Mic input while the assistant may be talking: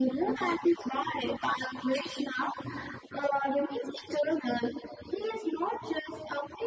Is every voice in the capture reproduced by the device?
Yes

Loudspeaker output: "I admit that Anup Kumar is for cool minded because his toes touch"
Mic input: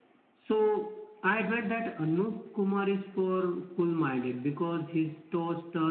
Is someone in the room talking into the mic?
No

